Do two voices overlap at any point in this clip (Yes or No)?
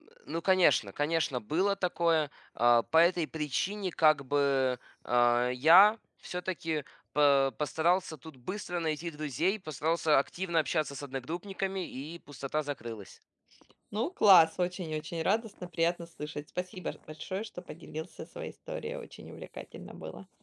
No